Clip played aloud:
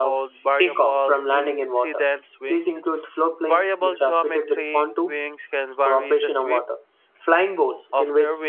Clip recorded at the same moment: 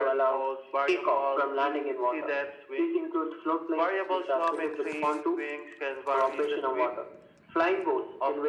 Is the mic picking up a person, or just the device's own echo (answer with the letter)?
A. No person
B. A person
A